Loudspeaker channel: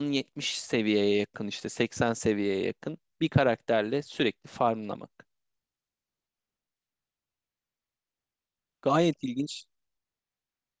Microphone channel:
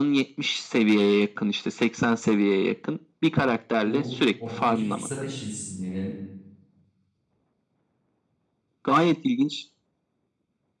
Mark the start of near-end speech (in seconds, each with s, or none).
3.8 s